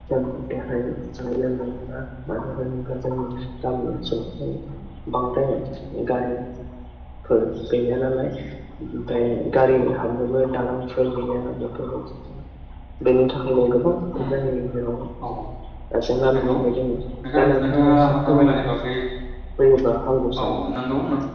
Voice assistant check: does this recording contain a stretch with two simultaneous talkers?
Yes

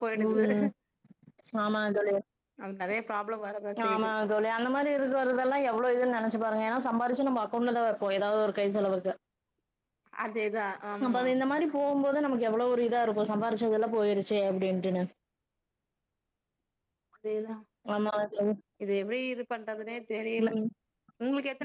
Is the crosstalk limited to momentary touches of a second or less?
Yes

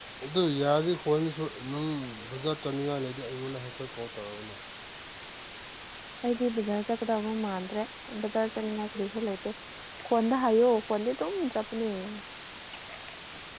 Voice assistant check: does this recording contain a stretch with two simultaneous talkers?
No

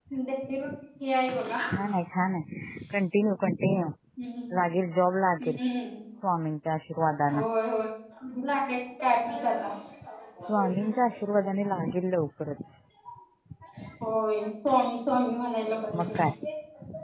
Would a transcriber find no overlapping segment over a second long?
Yes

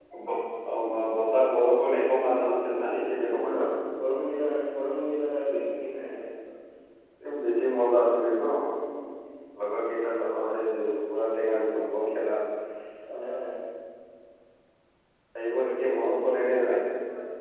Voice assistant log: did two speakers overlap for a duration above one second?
No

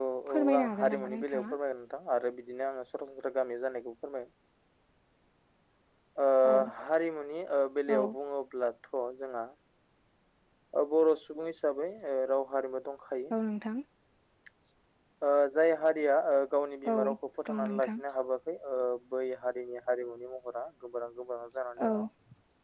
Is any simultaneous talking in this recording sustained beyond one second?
Yes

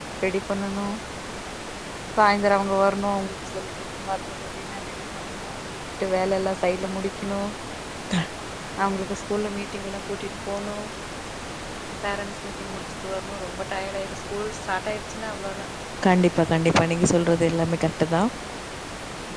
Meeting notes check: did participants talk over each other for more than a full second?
No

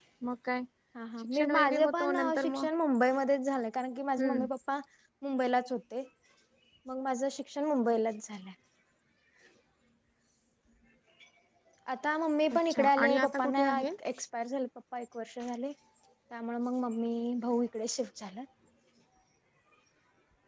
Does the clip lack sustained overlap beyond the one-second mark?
No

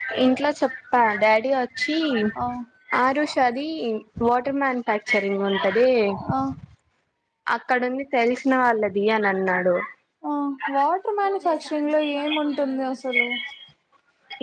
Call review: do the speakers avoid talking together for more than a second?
Yes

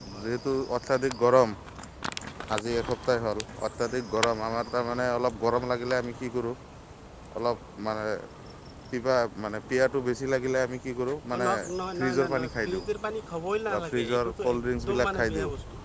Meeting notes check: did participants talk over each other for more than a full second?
Yes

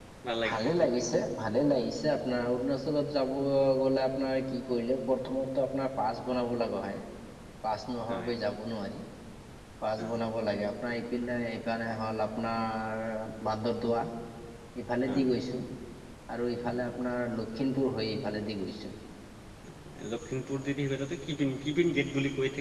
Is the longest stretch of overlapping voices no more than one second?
Yes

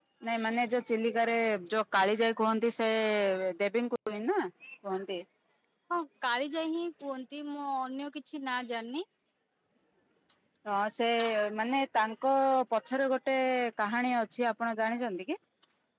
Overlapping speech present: No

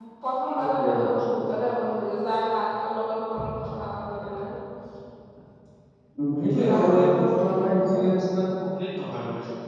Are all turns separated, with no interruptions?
No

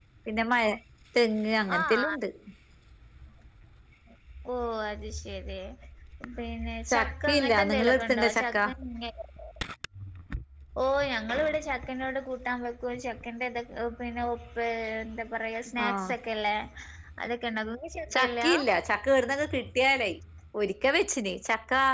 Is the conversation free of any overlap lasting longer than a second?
No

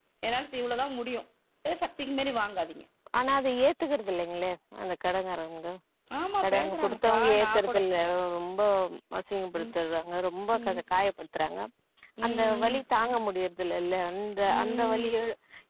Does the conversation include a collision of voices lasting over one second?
Yes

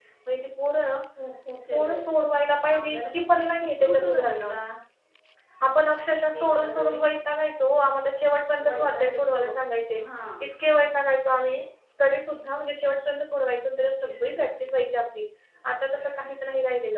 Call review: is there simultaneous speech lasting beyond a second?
Yes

